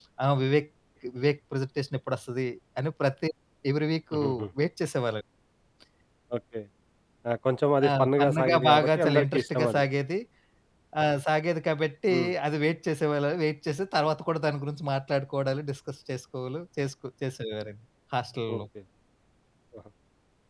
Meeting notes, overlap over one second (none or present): present